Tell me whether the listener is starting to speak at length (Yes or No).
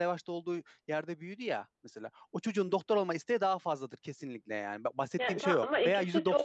Yes